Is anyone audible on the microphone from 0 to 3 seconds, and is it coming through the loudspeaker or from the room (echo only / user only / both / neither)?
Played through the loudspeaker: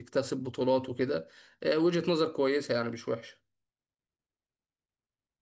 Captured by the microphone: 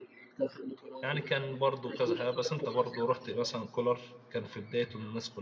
both